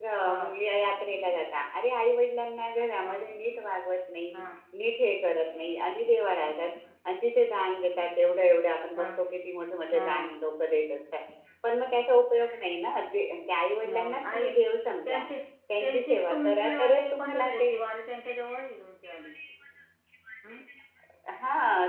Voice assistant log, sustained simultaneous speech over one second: present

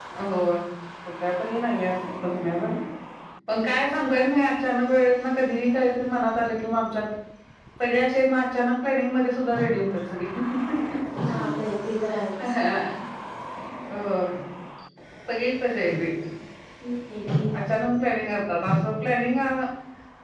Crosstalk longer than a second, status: none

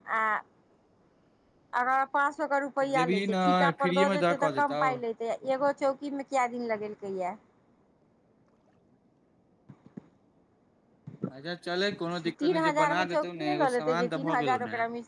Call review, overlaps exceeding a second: present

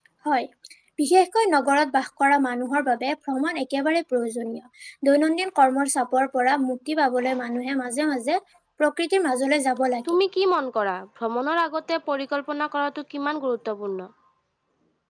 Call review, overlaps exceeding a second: none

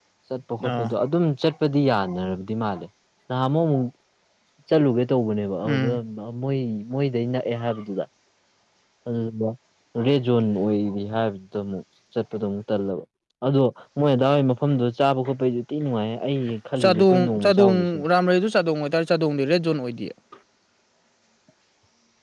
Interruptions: present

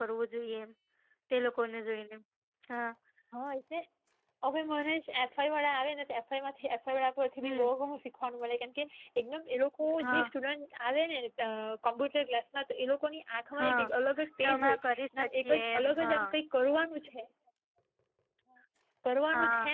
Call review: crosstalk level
present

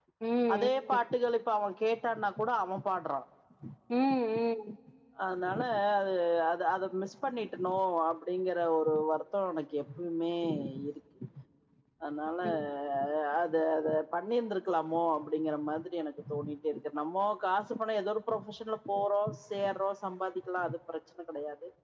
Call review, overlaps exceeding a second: none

